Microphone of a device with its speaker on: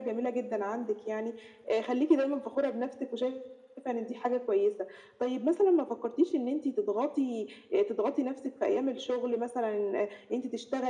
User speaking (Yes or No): No